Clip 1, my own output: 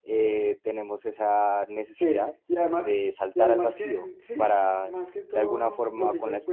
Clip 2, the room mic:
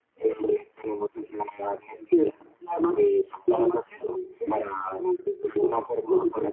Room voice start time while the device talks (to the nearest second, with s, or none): none